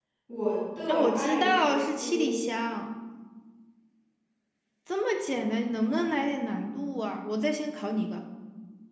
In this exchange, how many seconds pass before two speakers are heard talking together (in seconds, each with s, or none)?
0.9 s